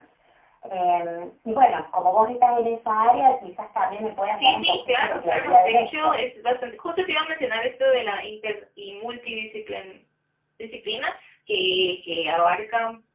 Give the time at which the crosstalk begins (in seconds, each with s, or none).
4.4 s